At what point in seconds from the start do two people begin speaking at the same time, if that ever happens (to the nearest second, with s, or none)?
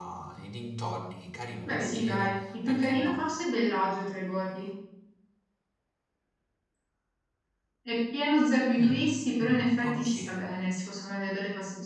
2 s